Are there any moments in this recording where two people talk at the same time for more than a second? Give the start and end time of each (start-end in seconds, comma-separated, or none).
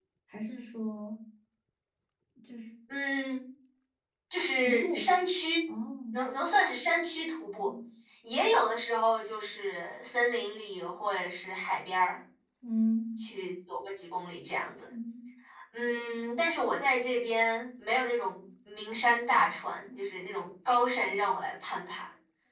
none